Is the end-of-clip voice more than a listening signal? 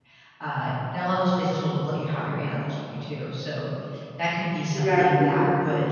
No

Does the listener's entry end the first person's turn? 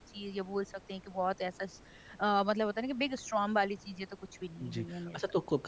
Yes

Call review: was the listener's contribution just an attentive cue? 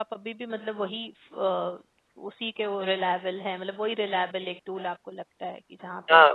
No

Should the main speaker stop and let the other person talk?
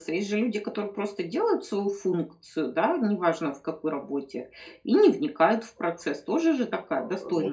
Yes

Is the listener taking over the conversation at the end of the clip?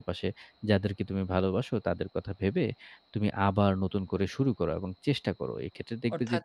Yes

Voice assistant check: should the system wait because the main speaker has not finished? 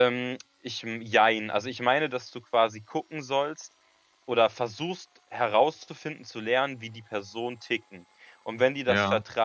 Yes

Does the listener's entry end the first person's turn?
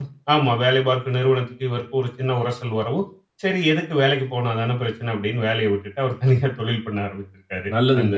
Yes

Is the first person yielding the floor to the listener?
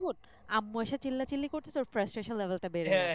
Yes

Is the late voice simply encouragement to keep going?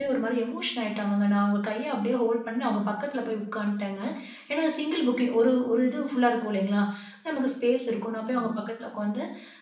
Yes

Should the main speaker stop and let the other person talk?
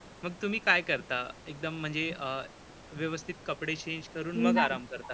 Yes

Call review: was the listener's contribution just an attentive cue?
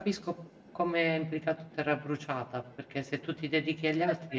No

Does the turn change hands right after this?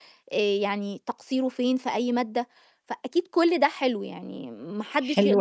Yes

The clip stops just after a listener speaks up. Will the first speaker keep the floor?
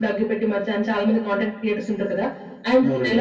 Yes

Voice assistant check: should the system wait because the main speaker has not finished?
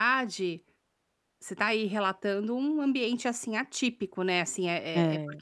Yes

